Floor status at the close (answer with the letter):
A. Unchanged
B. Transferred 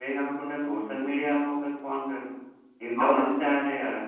A